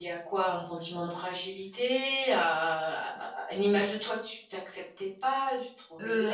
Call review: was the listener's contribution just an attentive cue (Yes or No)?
No